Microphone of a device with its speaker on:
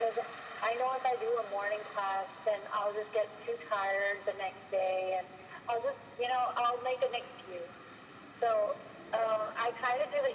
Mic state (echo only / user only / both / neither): echo only